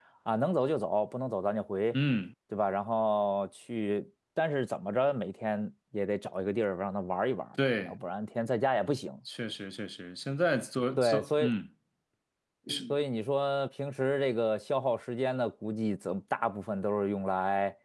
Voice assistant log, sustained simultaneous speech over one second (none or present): none